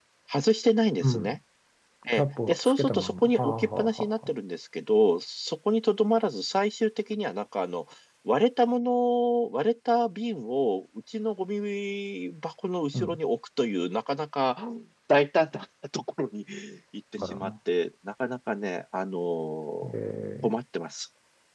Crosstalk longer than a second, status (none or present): present